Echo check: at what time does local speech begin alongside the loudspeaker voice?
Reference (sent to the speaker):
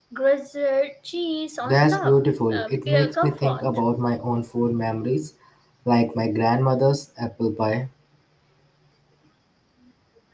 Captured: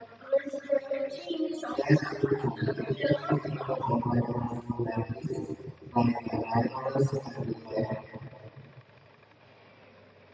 none

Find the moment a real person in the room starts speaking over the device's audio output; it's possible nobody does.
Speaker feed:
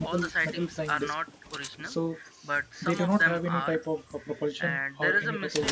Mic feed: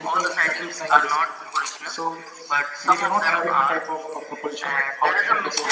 none

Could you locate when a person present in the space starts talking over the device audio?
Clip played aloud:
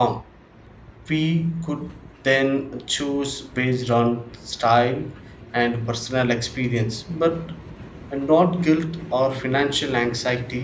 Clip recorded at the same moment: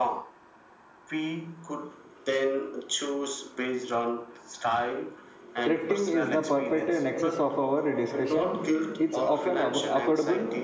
5.7 s

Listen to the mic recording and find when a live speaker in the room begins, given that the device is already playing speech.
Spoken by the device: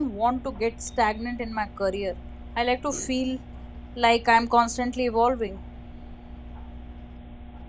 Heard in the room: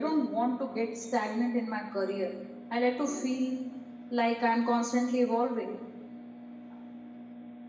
none

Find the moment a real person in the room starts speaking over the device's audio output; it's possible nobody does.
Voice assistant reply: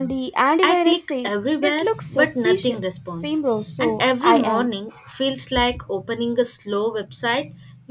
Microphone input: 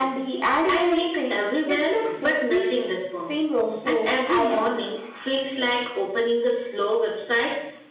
none

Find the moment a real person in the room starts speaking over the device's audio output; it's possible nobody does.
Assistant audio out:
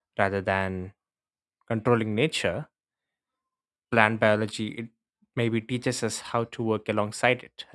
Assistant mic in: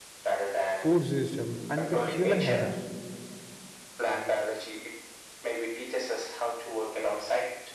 0.7 s

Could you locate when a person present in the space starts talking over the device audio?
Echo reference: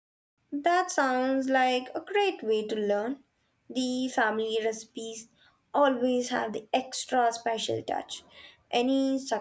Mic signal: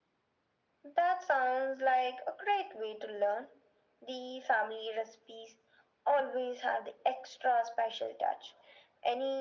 none

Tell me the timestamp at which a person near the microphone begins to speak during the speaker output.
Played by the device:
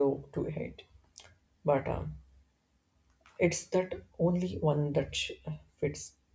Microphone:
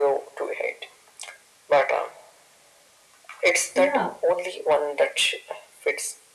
3.8 s

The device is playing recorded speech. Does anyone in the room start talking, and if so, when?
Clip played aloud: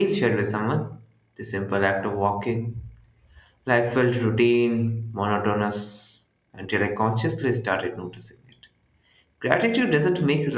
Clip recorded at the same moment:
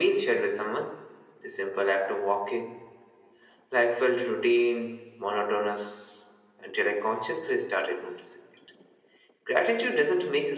none

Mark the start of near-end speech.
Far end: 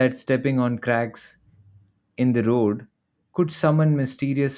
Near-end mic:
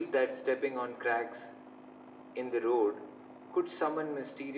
none

